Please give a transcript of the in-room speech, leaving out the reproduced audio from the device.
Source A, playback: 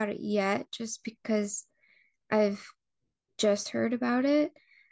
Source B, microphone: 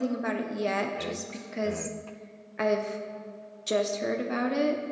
eggs and

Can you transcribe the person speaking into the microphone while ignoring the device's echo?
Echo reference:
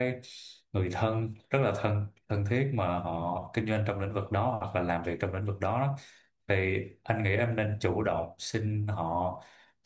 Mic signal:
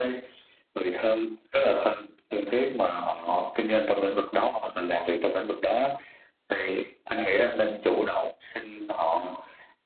none

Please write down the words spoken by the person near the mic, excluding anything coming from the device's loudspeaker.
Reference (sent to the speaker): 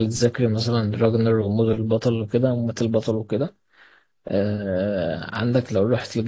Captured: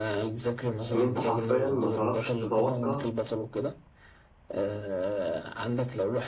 إن أنت حرفيا ما تعرفش تتوقع

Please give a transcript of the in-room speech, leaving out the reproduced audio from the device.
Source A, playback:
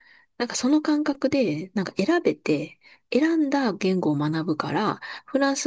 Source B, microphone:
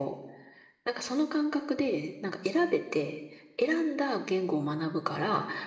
none

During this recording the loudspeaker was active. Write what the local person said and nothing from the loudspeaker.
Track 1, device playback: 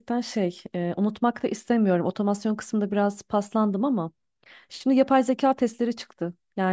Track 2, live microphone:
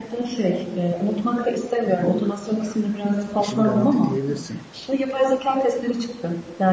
işim garanti diyebilirsin.

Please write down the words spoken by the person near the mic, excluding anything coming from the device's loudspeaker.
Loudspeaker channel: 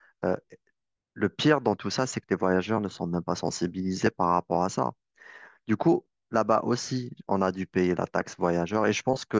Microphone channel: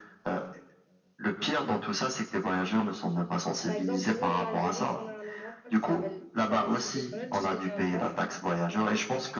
par exemple, nous en Algérie, on a un endroit qui s'appelle qui s'appelle Sidi Fredj, c'est un port.

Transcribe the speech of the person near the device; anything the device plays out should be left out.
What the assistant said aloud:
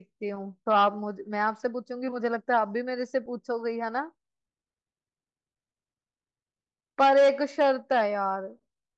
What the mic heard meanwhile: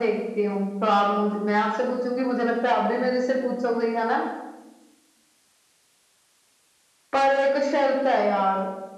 none

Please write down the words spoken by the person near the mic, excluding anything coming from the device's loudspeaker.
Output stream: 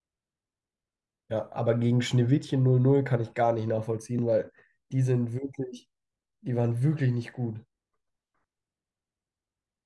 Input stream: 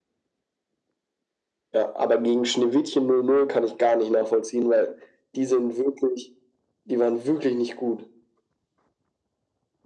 none

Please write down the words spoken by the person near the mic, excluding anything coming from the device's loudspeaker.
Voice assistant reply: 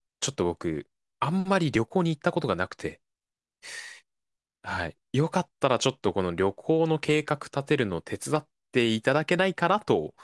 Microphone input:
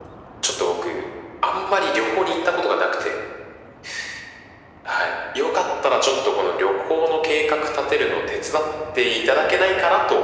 none

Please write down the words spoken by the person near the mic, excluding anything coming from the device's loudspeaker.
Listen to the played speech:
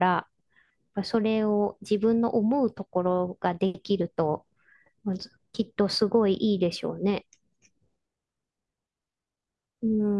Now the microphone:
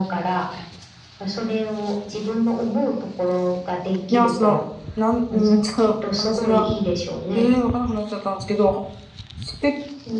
いや、その、なん、うん、ちょっと話が、ええー、わかんなくなっちゃったんですけど、して、

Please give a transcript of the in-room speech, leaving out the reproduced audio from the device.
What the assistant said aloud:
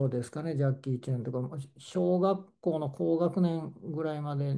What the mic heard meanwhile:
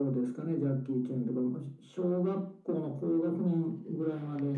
none

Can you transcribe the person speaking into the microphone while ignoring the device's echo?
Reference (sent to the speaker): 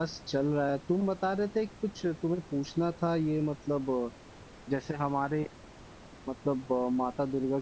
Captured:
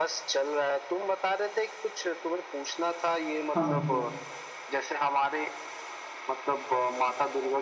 समझ गया

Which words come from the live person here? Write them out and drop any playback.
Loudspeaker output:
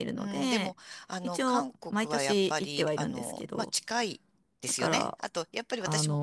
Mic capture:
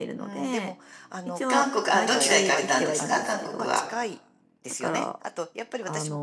韓国、あ、どちら行かれたんですか韓国は。

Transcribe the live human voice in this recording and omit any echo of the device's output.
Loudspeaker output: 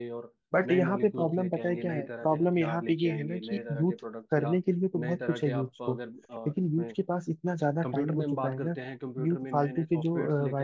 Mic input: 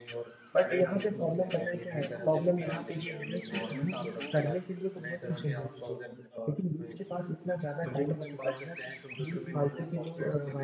अब मुझे लगता है देखिए गवर्नमेंट आपको

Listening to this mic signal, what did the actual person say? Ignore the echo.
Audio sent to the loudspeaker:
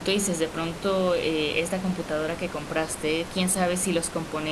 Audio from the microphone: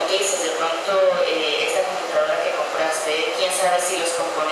none

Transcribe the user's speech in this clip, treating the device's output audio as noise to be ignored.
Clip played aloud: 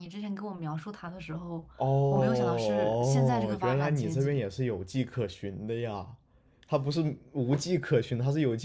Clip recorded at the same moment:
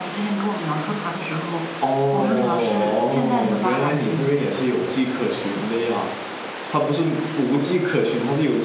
none

